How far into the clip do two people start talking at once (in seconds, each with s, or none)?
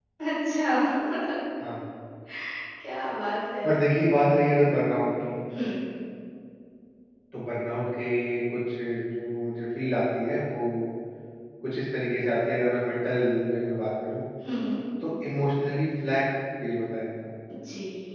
none